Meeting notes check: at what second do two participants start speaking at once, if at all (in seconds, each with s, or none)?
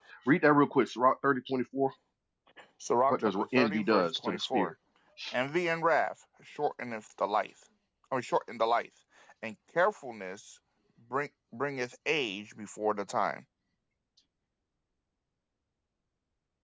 3.1 s